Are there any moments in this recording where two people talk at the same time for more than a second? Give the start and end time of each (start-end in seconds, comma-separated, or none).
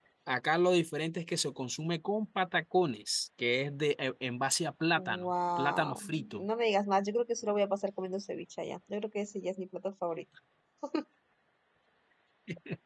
5.0-6.4